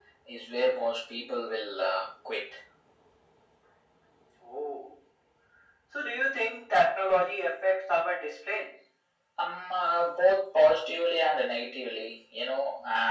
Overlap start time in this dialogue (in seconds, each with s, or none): none